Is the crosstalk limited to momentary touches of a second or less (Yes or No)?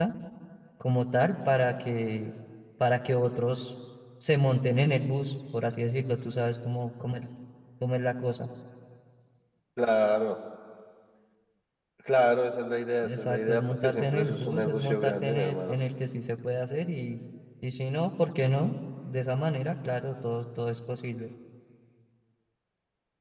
No